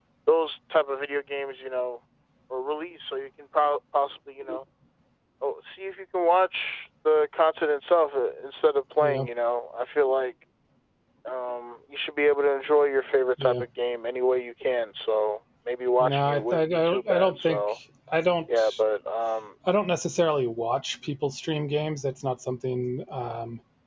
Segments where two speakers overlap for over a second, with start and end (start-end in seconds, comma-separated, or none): 16.0-17.8